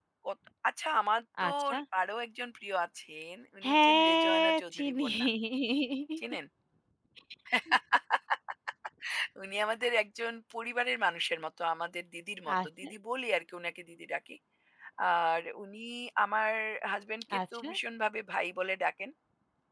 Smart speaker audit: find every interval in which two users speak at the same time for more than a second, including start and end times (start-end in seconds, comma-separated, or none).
3.6-5.1